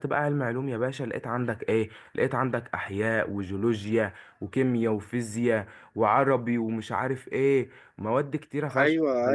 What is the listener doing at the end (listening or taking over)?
taking over